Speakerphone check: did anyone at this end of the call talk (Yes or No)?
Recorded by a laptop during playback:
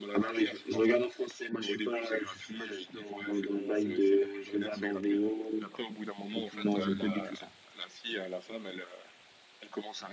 No